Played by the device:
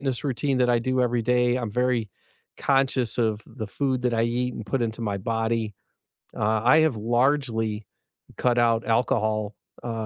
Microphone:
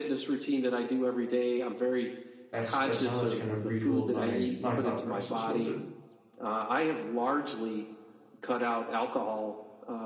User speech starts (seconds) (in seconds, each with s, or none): 2.5 s